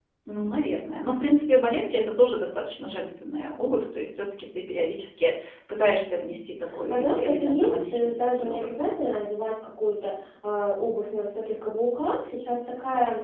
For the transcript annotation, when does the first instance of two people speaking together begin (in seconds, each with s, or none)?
6.7 s